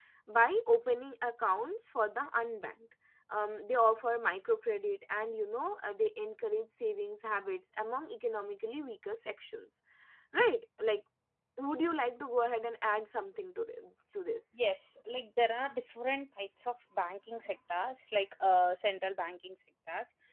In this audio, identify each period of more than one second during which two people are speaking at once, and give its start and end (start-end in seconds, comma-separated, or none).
none